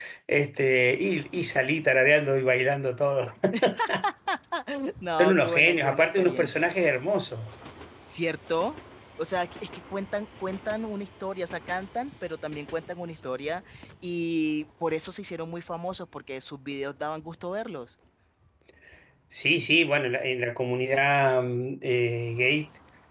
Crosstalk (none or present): present